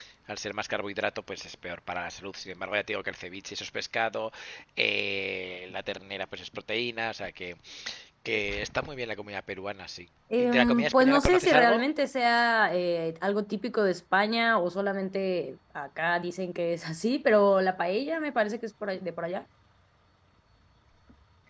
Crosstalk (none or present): present